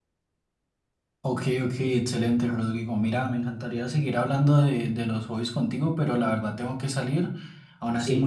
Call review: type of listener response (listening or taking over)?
listening